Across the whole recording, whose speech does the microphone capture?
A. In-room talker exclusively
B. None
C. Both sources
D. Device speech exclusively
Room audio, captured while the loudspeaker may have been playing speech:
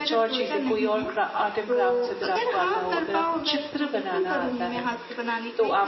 C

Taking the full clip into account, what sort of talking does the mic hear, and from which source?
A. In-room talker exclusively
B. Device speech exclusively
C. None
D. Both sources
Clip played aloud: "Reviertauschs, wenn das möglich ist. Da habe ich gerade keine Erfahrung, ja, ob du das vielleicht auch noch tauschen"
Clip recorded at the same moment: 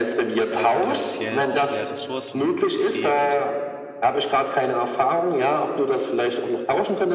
D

